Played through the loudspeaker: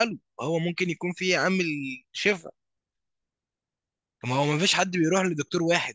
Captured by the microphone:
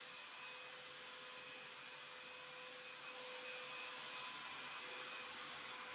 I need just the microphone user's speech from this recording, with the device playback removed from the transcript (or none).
none